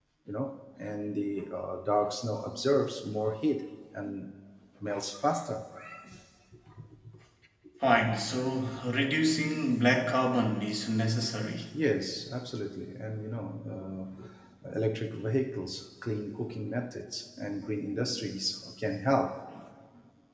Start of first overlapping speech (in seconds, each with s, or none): none